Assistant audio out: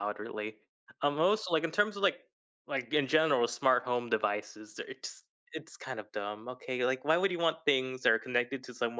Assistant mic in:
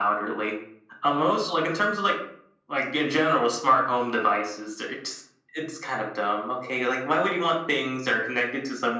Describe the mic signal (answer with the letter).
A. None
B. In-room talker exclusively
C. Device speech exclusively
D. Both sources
C